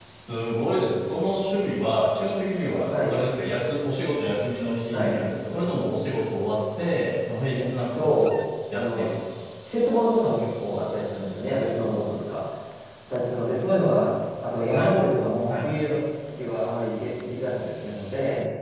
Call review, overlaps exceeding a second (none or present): none